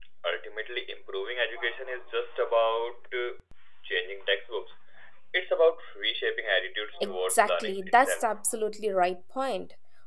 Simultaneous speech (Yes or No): Yes